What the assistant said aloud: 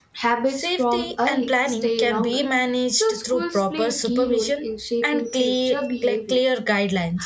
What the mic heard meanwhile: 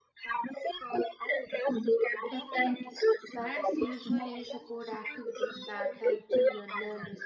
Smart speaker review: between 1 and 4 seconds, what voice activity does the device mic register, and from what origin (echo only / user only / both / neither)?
both